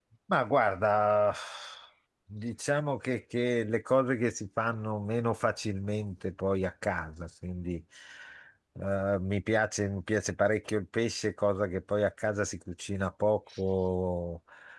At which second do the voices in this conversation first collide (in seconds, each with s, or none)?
none